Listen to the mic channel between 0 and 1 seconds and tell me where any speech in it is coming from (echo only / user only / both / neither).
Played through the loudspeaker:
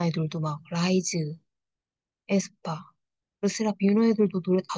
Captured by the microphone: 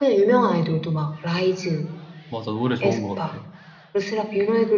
echo only